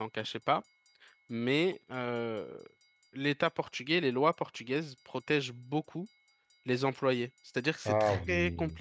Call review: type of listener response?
listening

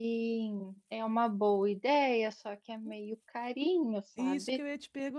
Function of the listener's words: taking over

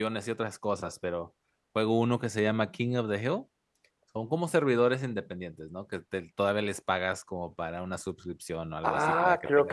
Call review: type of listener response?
taking over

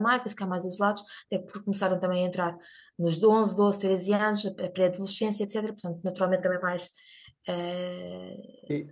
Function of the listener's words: listening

